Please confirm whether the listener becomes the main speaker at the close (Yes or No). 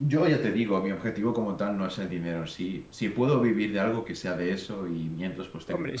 Yes